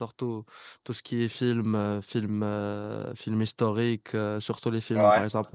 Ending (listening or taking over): listening